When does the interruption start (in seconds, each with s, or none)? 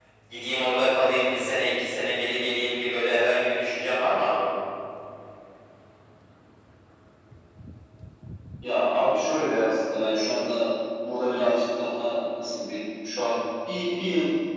none